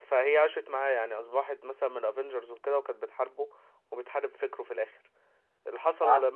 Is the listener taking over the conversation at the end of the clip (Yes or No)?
No